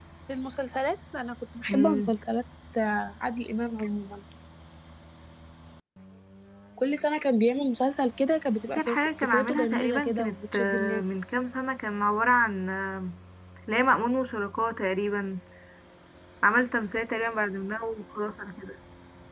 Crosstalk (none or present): present